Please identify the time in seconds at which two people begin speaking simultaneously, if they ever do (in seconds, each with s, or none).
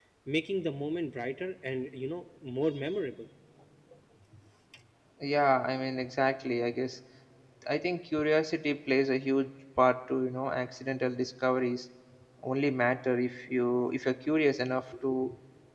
none